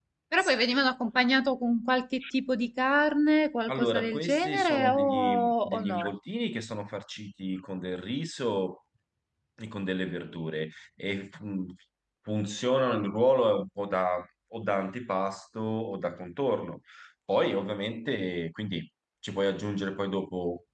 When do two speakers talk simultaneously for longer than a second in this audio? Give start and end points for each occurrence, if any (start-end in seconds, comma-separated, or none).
3.7-6.1